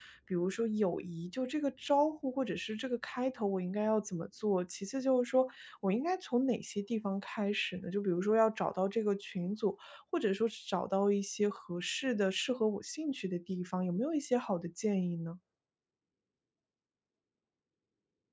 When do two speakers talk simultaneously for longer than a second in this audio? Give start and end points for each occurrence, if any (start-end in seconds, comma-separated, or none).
none